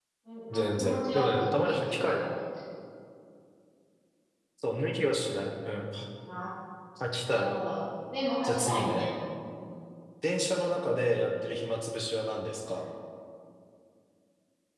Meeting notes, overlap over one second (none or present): present